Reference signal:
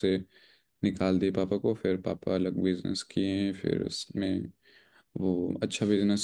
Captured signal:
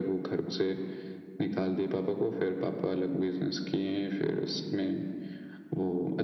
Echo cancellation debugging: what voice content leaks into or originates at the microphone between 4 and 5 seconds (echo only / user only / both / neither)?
echo only